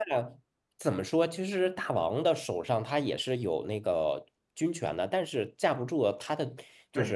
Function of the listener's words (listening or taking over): taking over